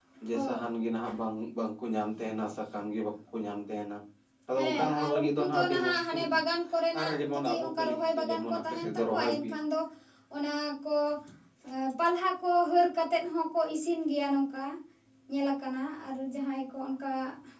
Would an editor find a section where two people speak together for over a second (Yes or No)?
Yes